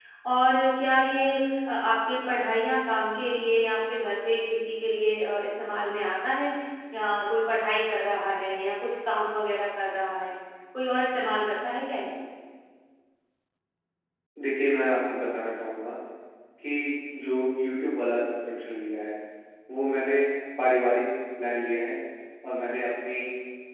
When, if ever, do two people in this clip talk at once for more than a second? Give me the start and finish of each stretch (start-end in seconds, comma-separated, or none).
none